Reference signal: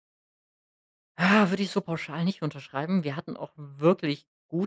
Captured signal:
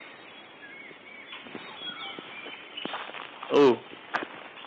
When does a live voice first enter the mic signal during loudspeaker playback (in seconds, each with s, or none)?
3.5 s